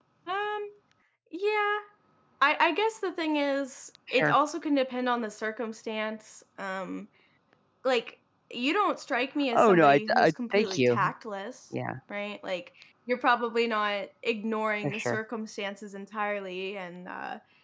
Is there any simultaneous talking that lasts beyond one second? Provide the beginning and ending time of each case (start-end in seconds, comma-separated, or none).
9.6-11.1